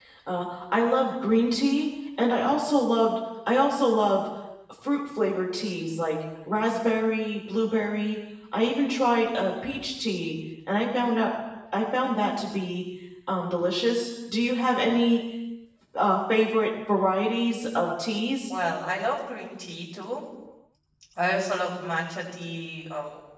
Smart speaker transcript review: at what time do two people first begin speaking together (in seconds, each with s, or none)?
none